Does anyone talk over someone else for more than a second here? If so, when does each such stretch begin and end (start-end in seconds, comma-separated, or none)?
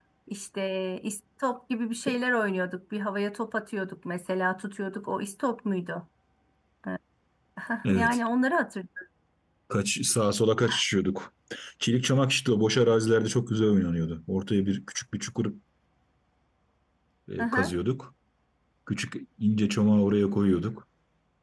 none